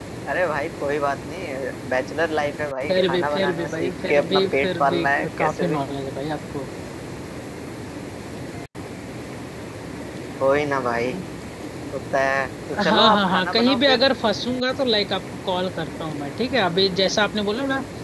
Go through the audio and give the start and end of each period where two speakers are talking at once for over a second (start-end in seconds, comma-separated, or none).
2.9-5.8, 12.7-14.0